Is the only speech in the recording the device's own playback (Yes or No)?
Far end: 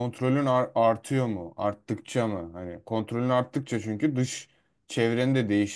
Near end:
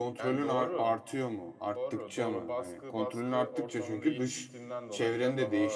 No